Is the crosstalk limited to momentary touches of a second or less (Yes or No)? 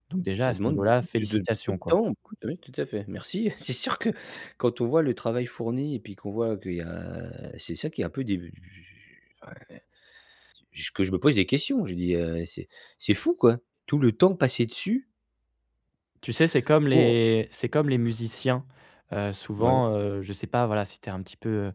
No